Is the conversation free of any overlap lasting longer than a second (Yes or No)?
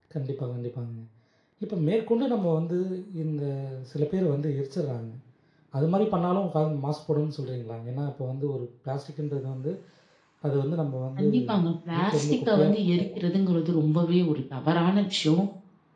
No